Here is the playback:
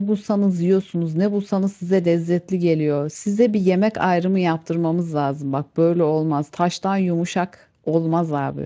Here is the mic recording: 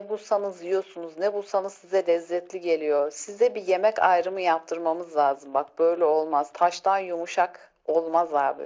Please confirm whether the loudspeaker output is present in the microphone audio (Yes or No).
Yes